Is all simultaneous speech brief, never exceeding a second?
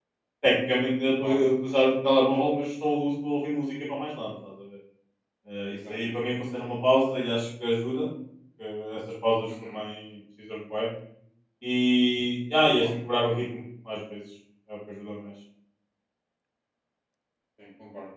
Yes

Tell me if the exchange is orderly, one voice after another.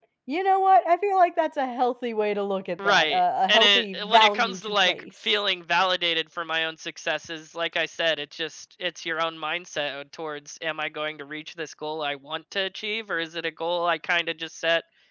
No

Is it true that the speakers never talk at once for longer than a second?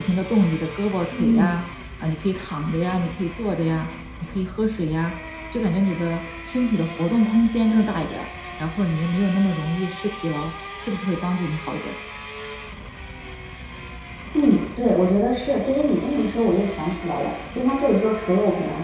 Yes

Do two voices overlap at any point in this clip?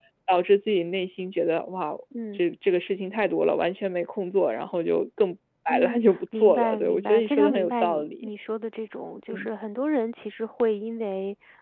Yes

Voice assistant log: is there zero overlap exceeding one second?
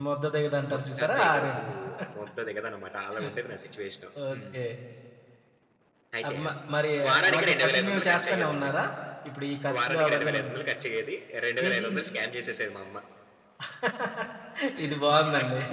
No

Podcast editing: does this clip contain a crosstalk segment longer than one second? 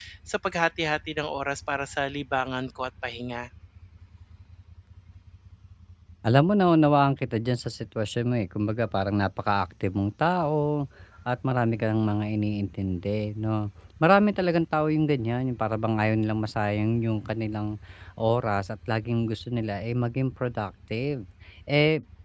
No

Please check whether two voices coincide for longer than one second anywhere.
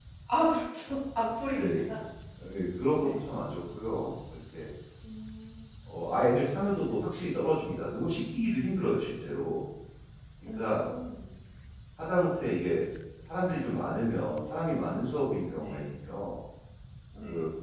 No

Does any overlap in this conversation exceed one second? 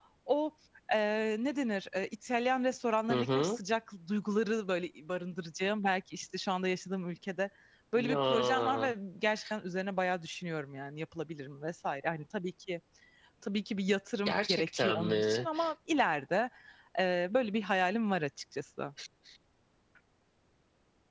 Yes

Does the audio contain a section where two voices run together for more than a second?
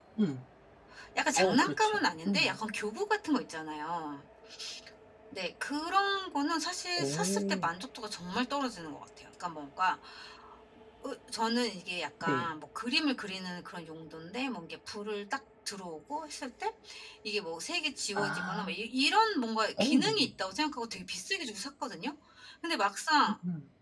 Yes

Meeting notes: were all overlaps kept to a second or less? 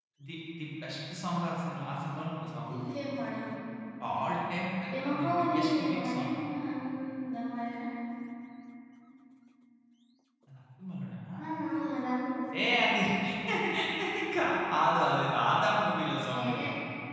No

